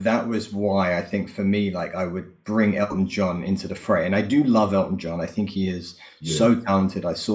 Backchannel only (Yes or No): Yes